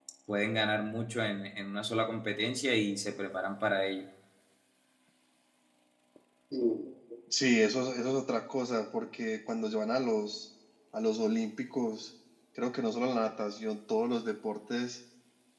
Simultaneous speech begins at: none

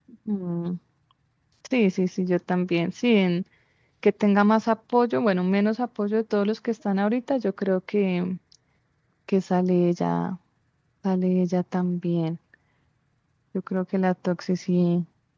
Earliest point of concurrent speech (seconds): none

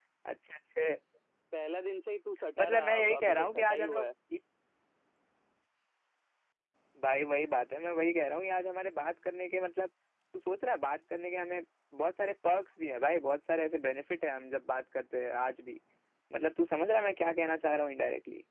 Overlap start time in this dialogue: 3 s

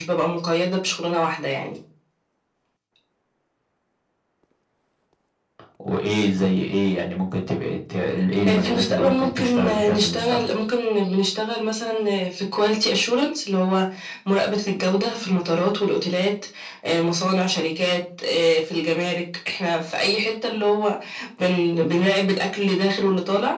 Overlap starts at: 8 s

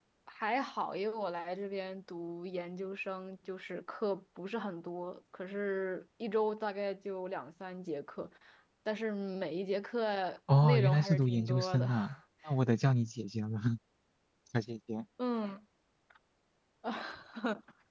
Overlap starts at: 10 s

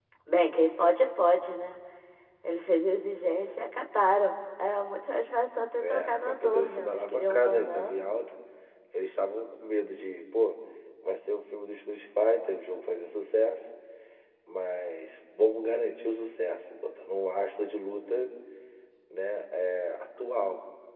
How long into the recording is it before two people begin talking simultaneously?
6 s

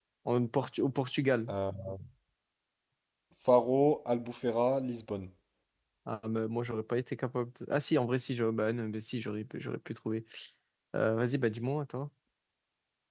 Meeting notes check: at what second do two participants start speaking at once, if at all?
none

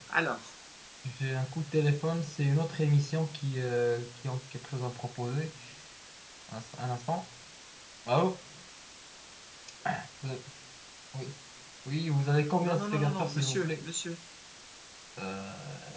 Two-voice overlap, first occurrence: 13 s

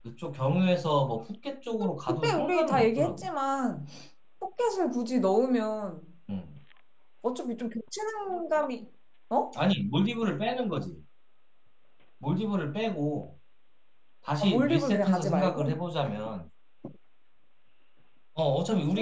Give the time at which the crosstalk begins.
2 s

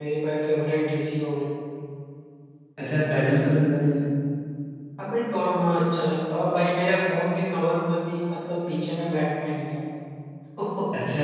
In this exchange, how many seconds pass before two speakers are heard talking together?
none

